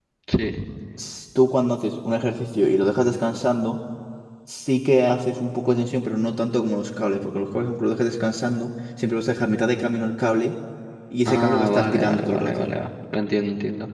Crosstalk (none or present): present